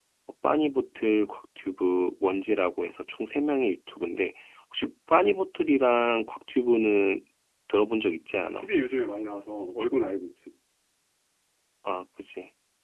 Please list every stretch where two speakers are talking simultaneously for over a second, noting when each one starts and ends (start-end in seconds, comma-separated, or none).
none